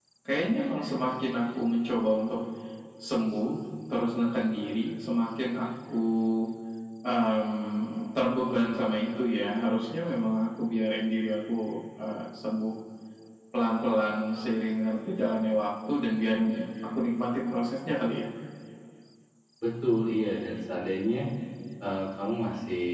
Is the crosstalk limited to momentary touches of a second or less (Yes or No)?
Yes